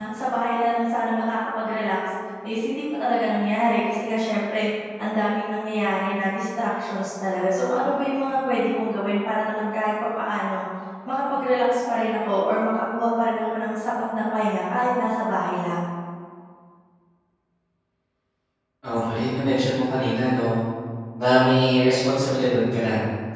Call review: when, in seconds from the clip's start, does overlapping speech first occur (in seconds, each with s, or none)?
none